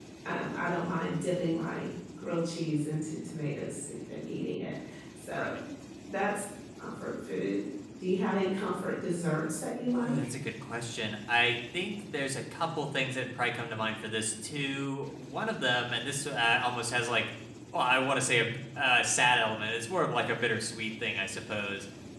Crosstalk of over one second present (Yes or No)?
No